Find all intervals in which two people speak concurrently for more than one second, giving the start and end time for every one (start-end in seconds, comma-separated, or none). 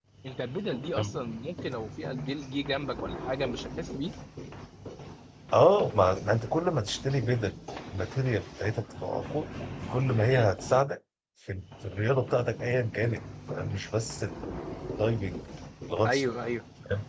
none